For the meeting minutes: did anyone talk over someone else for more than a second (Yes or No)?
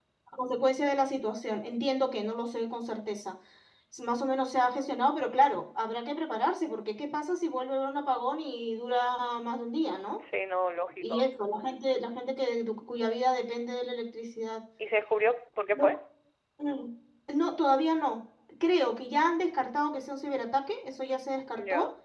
No